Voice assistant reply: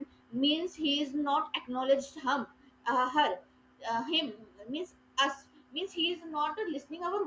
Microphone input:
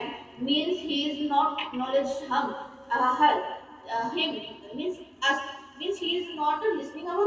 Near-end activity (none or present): none